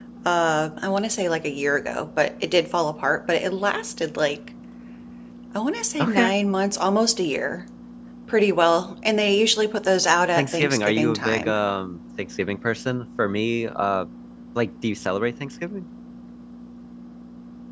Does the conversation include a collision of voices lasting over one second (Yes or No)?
Yes